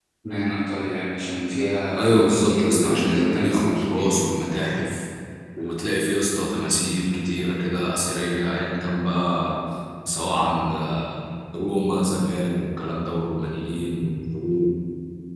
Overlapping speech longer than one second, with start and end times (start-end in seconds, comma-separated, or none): 2.0-4.1